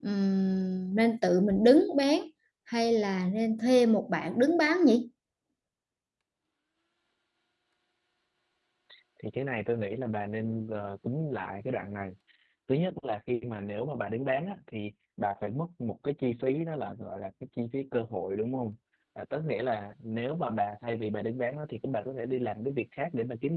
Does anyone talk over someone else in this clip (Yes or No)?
No